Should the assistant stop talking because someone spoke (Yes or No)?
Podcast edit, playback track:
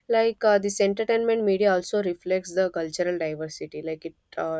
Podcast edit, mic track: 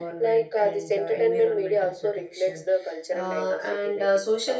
Yes